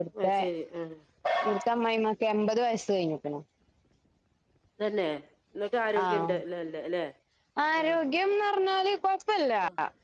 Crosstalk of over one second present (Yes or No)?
No